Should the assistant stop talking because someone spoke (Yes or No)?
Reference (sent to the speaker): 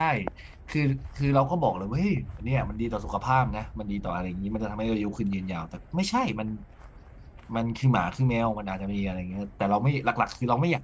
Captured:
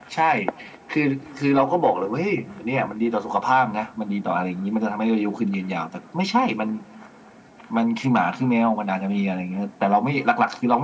No